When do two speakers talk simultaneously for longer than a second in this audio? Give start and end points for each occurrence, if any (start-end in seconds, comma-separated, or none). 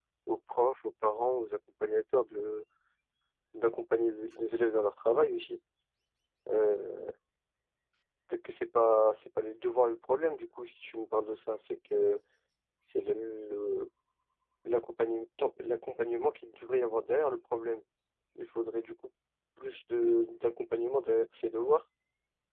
none